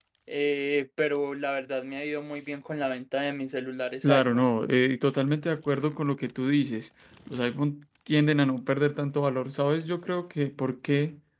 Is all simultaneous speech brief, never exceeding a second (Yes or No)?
Yes